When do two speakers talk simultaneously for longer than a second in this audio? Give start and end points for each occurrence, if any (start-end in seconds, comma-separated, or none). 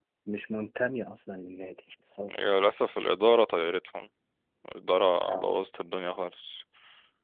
none